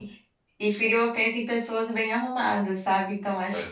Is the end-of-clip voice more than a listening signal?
No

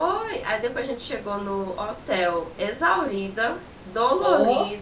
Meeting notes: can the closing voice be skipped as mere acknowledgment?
Yes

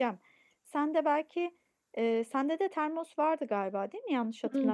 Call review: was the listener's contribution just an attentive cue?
No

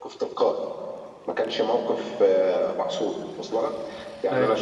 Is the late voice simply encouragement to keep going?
Yes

